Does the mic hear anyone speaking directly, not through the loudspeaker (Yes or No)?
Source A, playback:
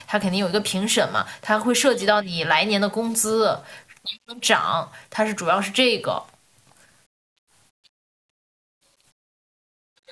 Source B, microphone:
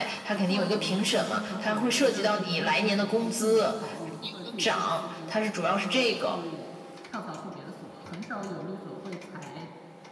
Yes